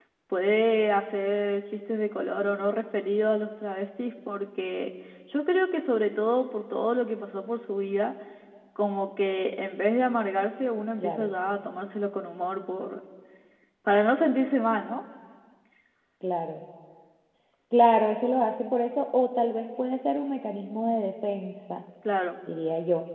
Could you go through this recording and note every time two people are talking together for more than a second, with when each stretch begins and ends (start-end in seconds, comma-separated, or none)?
none